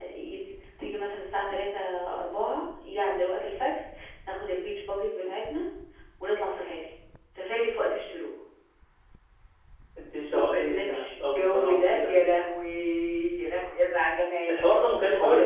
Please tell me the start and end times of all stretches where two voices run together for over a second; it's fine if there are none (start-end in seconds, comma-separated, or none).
10.3-12.1